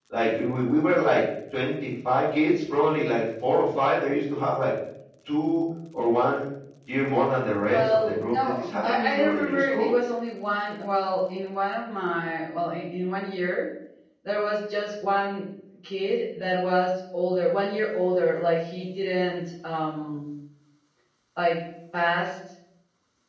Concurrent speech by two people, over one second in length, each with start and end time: 7.7-9.9

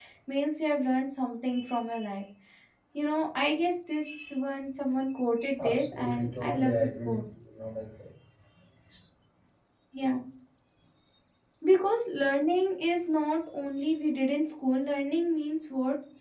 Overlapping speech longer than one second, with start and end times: 5.6-7.2

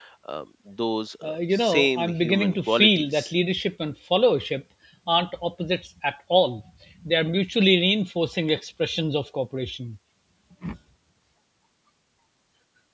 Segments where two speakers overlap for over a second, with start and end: 1.2-3.3

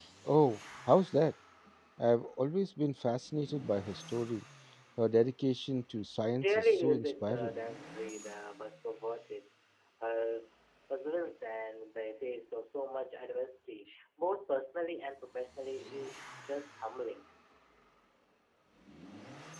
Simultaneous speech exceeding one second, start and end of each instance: 6.3-7.5

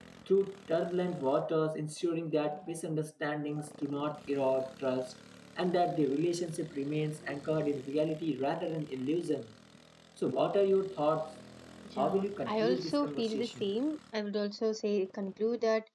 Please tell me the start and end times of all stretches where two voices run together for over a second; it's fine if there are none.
12.0-13.7

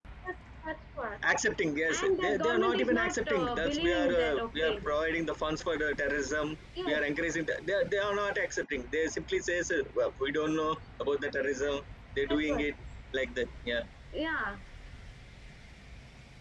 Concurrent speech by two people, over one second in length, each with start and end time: 1.9-4.8

